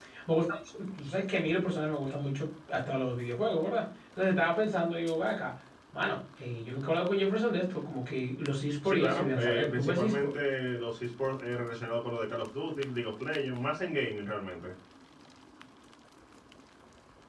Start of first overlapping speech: 8.8 s

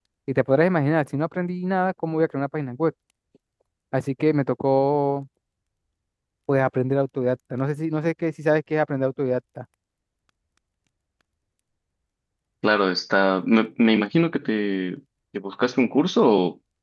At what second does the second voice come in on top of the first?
none

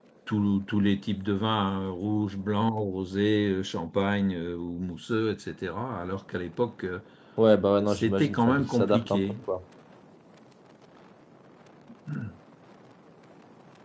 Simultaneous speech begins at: 7.9 s

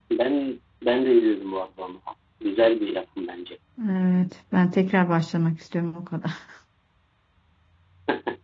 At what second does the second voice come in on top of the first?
none

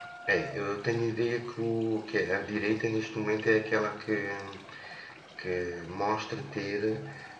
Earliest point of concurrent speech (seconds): none

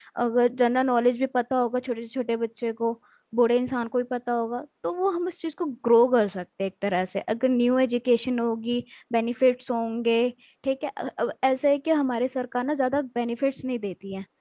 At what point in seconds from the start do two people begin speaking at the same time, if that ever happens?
none

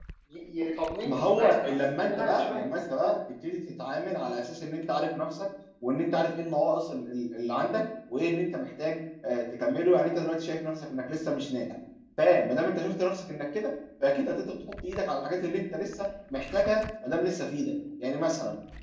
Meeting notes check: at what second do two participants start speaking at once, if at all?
1.1 s

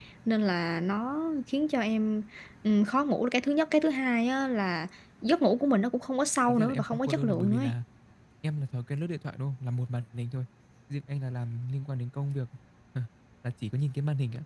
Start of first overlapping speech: 6.5 s

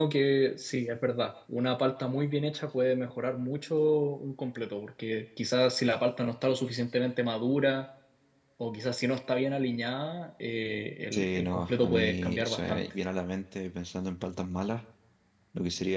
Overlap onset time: 11.1 s

